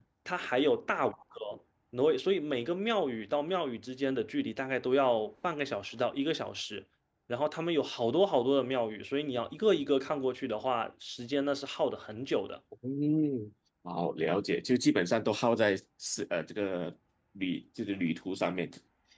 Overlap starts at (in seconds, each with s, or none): none